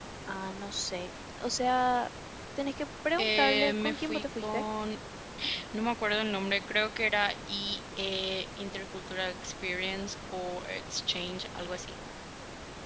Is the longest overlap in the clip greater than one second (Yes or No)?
Yes